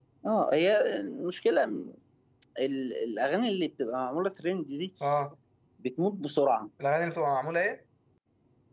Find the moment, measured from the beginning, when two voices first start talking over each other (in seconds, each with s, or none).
none